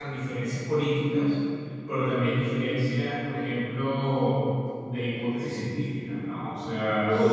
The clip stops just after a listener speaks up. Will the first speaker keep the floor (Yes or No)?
Yes